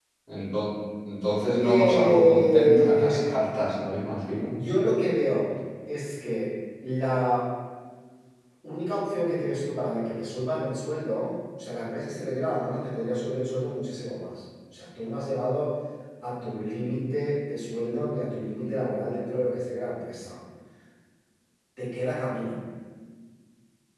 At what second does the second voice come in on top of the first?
1.6 s

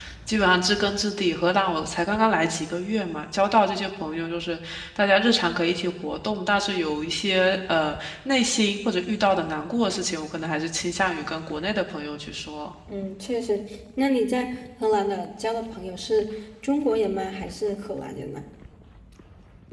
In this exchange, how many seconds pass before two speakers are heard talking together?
none

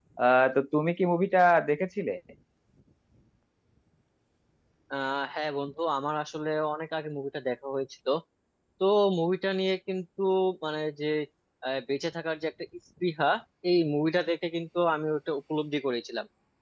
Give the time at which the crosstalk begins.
none

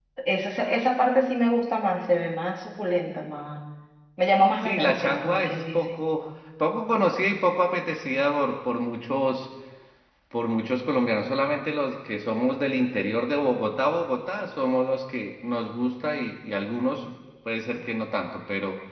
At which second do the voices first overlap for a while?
4.6 s

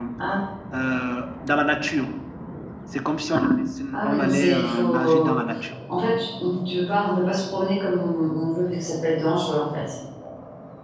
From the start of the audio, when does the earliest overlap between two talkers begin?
4.0 s

